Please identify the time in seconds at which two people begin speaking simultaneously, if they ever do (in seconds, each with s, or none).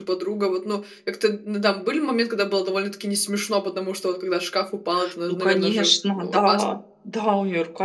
5.3 s